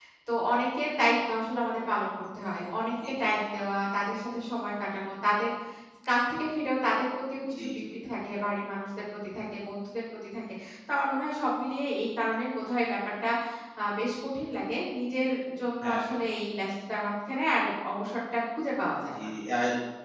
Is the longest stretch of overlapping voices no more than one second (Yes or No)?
Yes